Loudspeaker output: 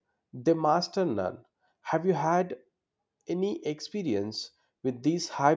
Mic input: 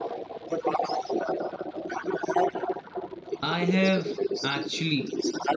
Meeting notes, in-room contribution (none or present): present